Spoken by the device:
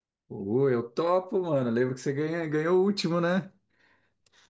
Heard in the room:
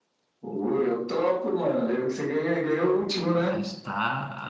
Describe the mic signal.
both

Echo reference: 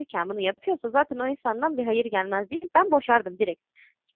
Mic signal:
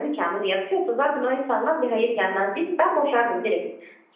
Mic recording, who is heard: echo only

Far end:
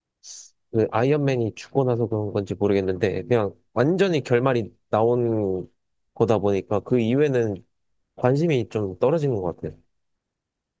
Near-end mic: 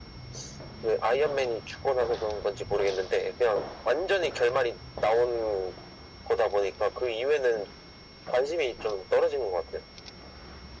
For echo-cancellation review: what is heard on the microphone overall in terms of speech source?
echo only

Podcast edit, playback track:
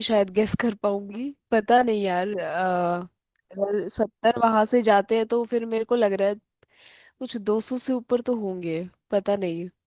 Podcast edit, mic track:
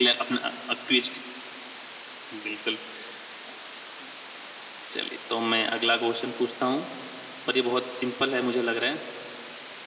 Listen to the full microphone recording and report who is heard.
user only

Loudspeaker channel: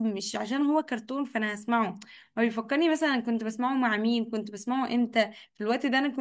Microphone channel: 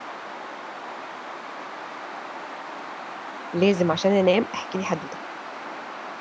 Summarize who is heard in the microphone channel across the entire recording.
user only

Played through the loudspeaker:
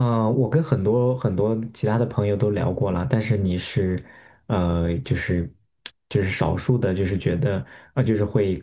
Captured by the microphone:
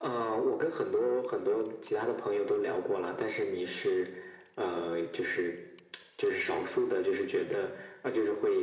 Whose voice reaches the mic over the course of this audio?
echo only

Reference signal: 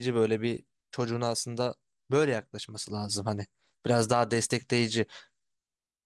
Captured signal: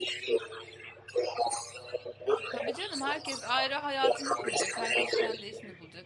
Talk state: both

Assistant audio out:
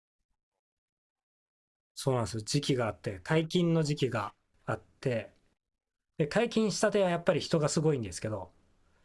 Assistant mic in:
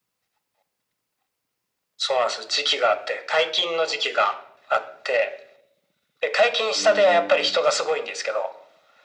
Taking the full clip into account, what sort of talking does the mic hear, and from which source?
both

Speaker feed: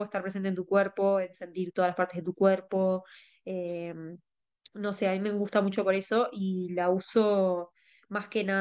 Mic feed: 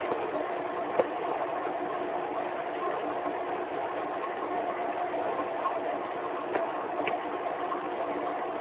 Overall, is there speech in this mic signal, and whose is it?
neither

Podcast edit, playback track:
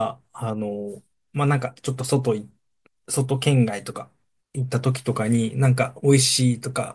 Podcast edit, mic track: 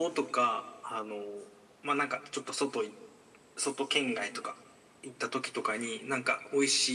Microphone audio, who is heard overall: echo only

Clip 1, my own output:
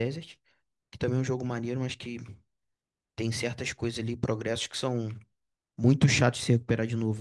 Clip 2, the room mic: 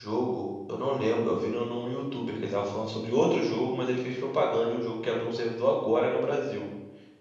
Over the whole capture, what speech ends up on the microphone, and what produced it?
user only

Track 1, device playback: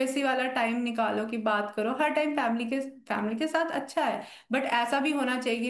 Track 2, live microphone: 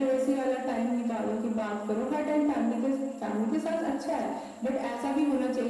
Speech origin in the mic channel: echo only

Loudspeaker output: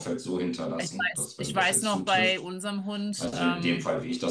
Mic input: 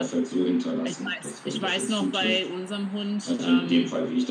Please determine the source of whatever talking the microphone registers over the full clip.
echo only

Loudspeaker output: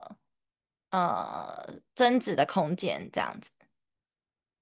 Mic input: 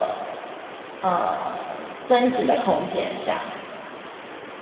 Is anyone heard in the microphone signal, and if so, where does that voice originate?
echo only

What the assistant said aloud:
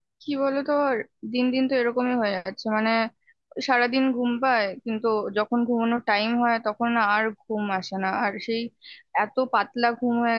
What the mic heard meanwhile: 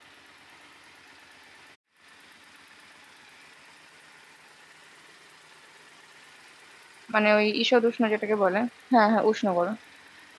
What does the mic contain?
user only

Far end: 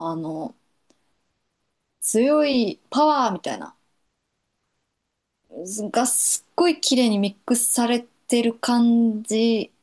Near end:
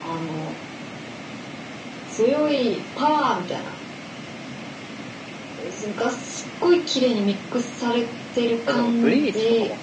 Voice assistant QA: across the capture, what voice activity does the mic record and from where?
both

